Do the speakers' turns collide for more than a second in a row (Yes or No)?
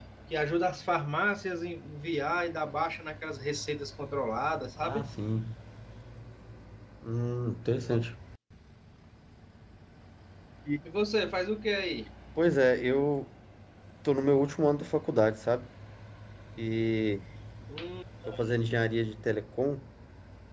No